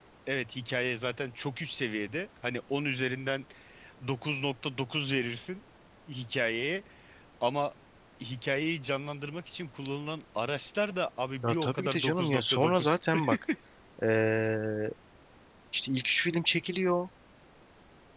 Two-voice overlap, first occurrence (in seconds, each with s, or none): 11.4 s